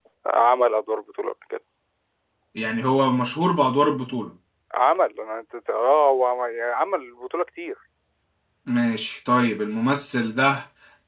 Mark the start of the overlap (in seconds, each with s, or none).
none